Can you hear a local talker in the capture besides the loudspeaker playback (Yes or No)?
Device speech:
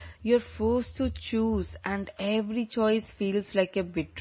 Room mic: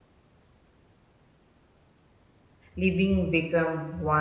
Yes